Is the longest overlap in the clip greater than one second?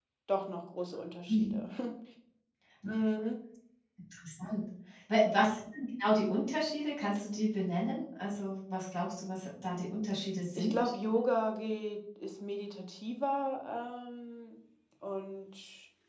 No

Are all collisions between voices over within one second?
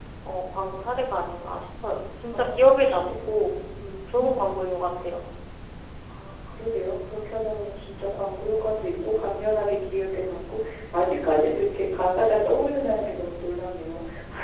No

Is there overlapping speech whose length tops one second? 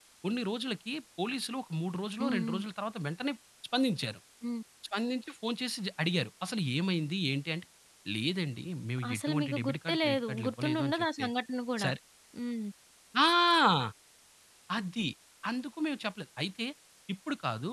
Yes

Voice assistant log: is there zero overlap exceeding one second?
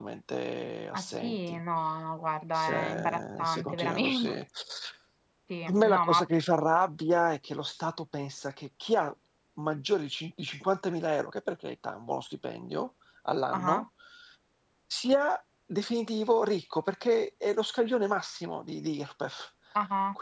No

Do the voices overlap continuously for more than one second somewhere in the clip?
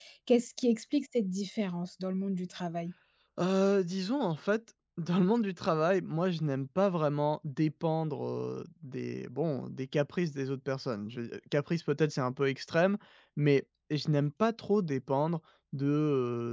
No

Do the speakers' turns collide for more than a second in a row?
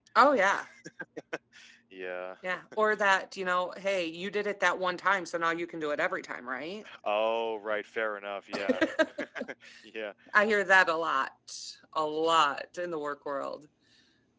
No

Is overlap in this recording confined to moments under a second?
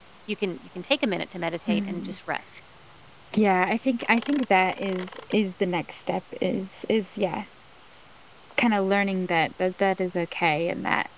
Yes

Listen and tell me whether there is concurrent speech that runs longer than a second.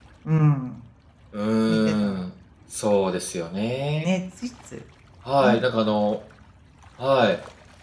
No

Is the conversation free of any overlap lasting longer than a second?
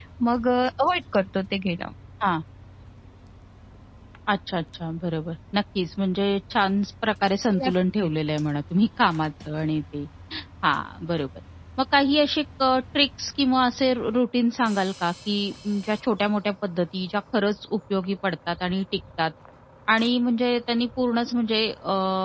Yes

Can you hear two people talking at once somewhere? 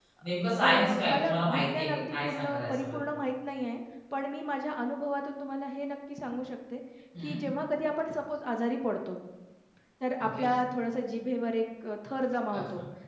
Yes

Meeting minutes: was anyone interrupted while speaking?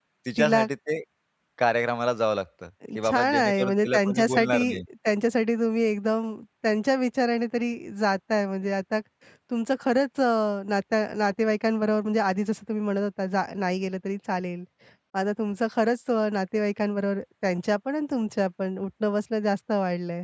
Yes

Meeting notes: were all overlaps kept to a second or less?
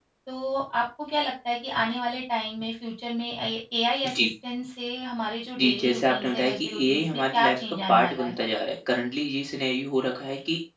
No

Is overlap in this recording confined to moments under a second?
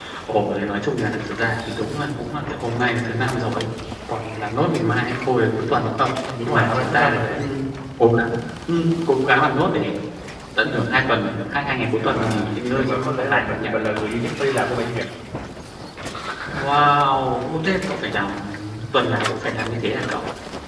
No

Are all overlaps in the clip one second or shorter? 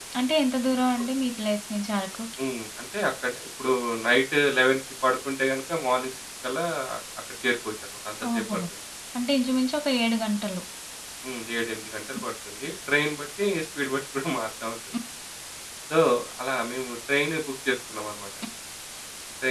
Yes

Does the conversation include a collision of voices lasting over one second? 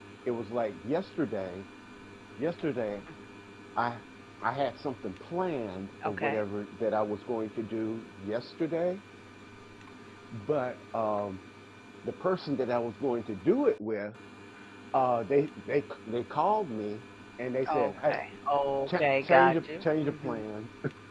Yes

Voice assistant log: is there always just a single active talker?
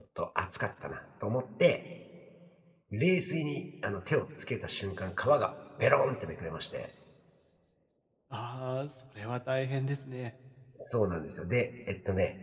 Yes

